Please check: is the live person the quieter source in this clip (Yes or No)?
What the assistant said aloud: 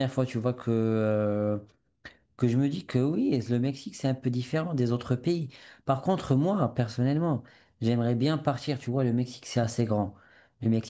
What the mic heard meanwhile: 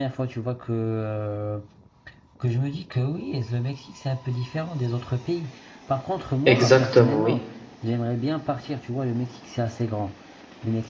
No